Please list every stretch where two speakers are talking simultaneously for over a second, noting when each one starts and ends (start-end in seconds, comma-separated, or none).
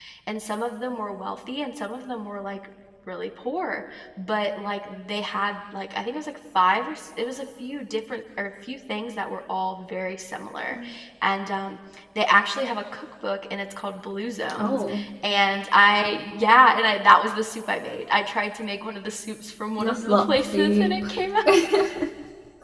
19.8-21.0